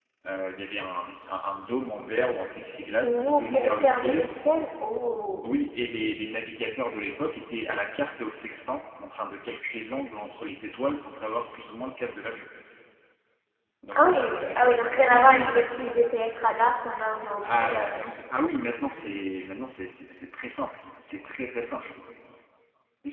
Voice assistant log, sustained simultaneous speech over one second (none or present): present